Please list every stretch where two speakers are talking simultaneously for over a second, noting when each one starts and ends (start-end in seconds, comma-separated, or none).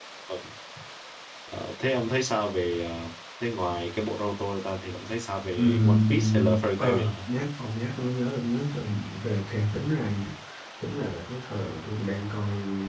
5.5-7.1